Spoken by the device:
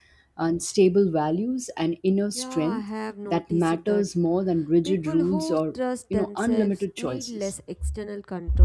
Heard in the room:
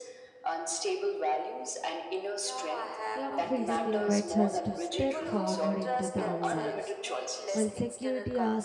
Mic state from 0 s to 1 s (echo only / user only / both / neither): echo only